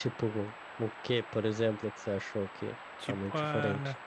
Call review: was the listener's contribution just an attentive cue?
No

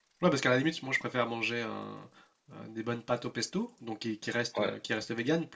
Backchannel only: Yes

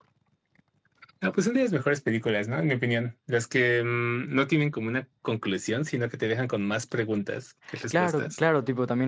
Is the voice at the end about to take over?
Yes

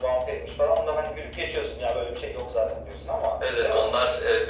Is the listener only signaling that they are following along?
No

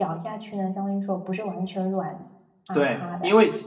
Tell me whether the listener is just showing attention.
No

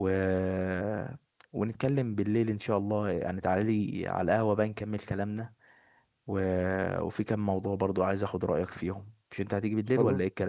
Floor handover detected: Yes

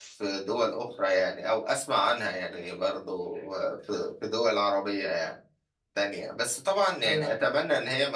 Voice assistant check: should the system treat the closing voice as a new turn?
No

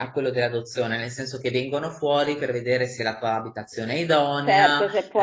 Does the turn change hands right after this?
Yes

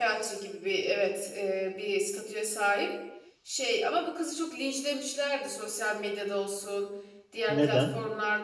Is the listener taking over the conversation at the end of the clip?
No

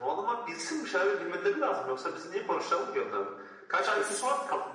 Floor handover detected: No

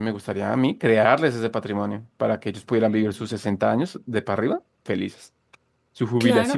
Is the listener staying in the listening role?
No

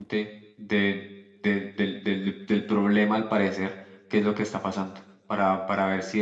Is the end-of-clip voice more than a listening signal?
No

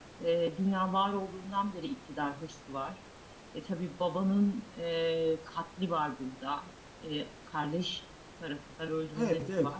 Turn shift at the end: Yes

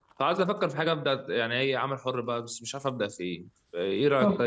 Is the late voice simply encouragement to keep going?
No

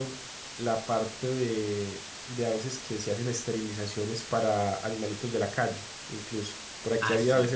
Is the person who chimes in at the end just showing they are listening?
Yes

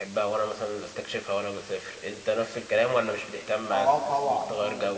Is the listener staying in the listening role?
No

